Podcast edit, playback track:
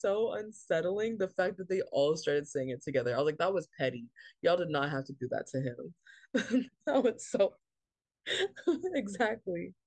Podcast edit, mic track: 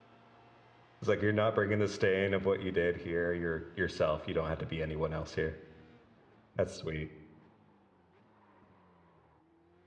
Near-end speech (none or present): present